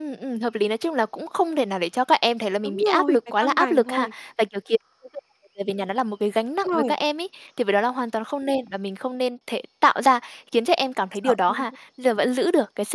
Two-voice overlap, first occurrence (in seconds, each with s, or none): 2.6 s